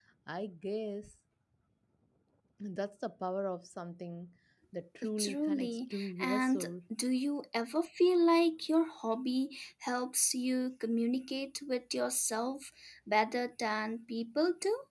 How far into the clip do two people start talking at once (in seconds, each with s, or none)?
5.2 s